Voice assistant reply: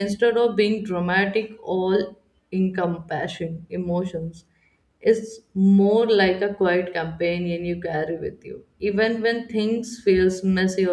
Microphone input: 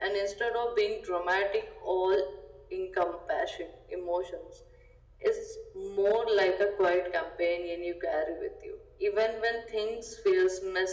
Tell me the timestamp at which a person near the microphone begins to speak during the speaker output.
none

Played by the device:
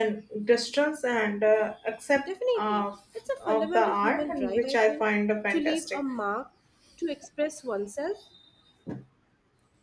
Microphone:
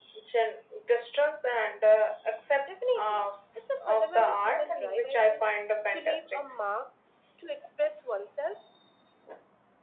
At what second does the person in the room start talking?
none

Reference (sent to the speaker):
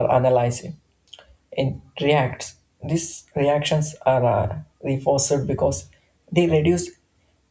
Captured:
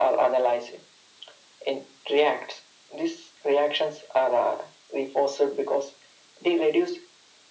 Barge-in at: none

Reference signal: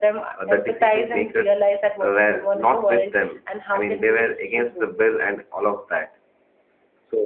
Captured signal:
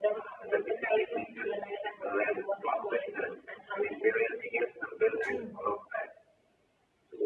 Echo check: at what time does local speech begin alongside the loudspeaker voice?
5.2 s

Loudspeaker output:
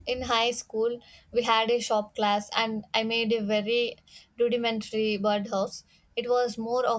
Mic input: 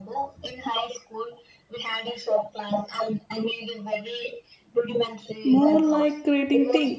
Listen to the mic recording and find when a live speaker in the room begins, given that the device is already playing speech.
5.5 s

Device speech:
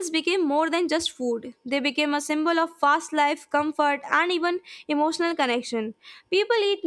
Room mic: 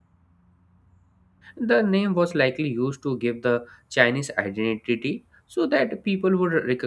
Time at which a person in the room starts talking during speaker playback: 1.6 s

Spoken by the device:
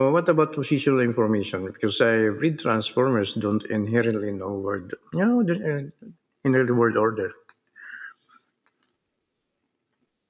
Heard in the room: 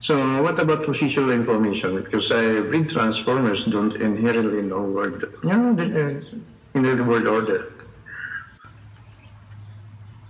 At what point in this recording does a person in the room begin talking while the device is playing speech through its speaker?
none

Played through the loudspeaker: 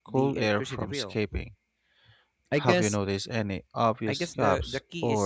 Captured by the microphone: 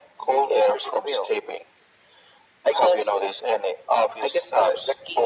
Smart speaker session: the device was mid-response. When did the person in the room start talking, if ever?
none

